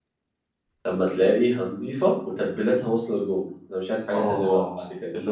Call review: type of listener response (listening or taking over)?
taking over